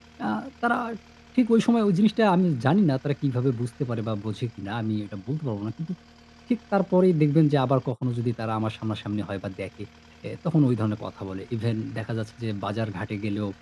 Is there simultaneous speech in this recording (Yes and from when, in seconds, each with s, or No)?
No